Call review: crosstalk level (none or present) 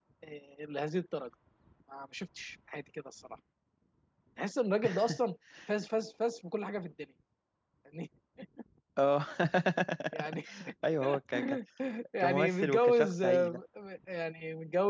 present